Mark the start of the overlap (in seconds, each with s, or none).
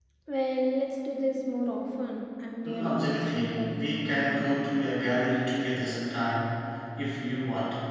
2.6 s